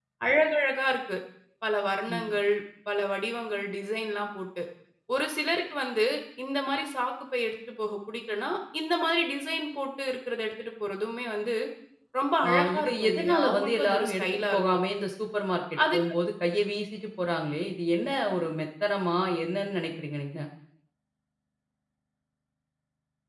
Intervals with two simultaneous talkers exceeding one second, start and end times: 12.5-14.6

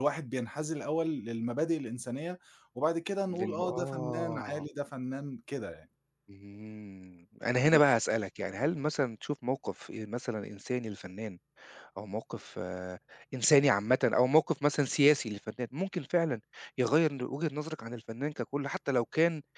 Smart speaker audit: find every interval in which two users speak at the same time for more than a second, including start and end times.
3.3-4.6

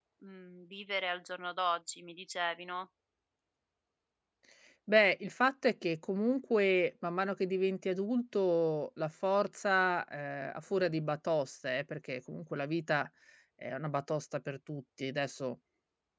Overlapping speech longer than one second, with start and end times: none

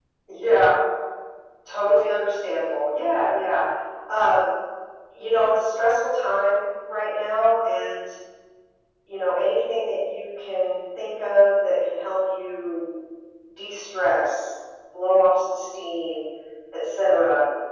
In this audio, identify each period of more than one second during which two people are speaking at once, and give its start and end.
none

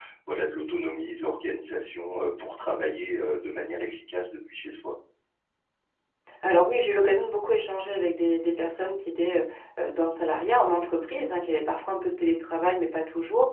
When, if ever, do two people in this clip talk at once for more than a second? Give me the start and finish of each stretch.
none

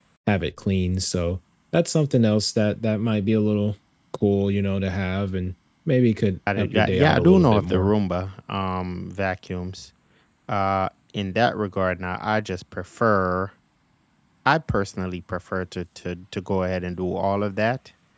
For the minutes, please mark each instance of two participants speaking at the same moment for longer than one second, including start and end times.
6.6-7.9

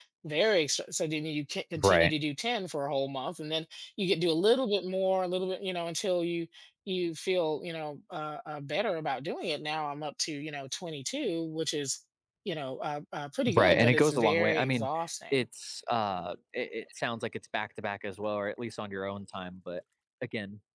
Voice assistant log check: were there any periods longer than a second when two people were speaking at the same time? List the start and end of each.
13.5-14.9

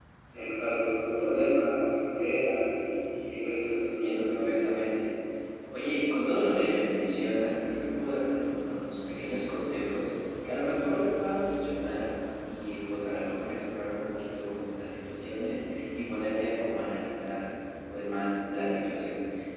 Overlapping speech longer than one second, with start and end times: 3.5-4.8

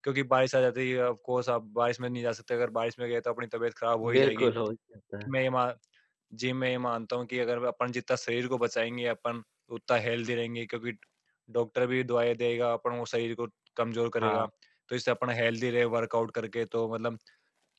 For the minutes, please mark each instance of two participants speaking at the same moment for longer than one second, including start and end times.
none

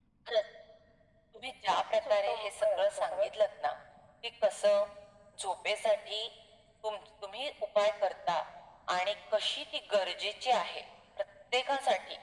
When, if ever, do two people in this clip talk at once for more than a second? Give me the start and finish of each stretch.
1.7-3.3

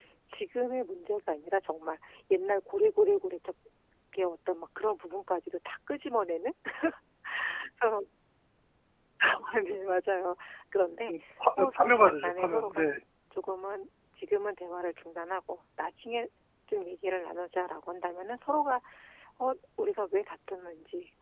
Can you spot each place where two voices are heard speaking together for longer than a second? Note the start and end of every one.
11.6-12.8

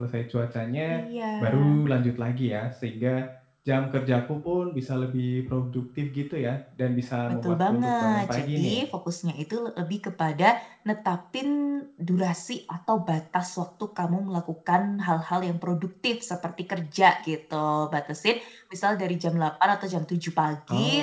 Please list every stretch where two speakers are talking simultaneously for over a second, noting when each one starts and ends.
7.3-8.8

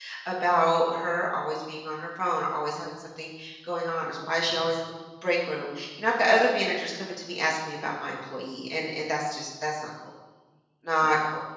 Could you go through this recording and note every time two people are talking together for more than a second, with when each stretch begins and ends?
none

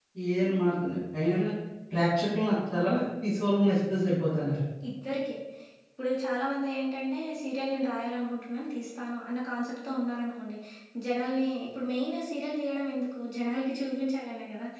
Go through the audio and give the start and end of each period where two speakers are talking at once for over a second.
none

